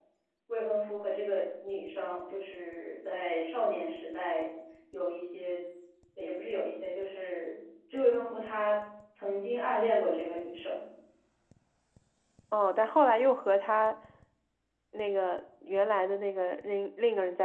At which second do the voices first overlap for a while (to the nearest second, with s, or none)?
none